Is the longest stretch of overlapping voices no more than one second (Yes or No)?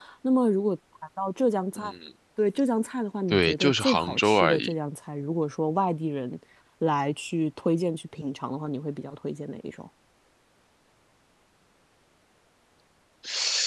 No